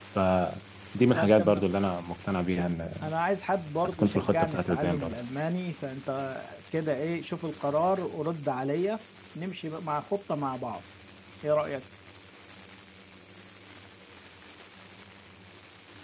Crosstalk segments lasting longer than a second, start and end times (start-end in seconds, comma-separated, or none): 3.8-5.2